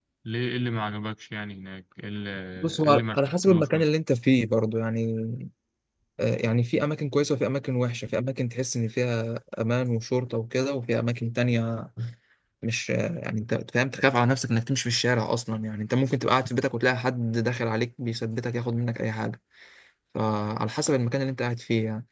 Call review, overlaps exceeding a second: present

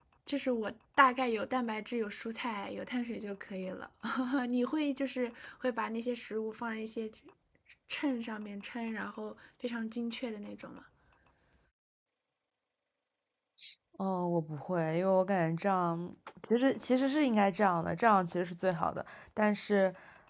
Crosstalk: none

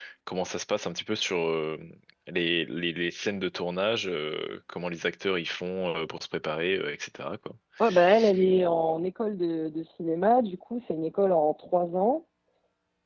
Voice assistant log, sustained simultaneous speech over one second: none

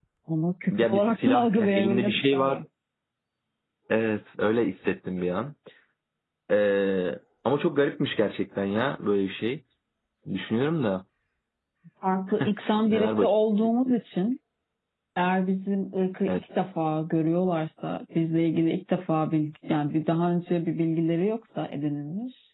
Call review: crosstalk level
present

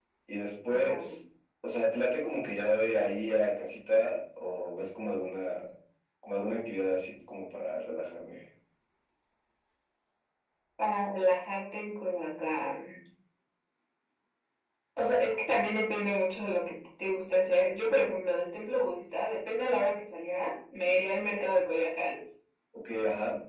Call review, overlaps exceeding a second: none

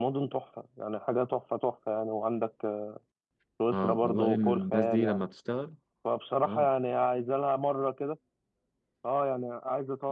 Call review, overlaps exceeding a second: present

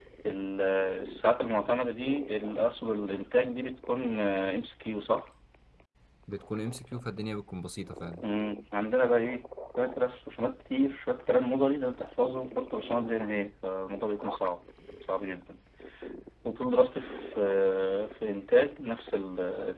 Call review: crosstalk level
none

